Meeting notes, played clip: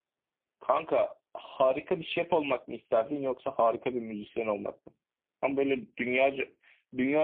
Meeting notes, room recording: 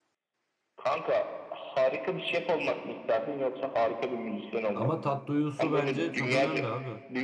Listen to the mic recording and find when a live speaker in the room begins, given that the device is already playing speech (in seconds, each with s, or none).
4.7 s